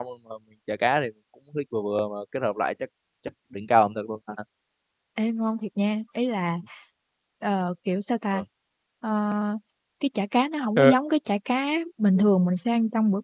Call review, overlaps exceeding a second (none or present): none